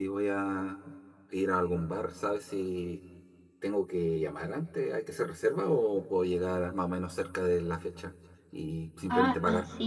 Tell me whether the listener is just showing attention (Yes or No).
No